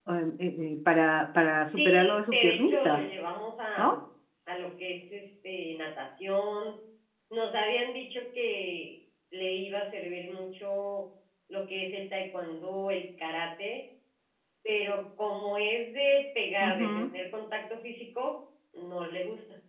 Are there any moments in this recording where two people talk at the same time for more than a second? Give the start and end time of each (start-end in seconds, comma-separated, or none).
1.7-3.0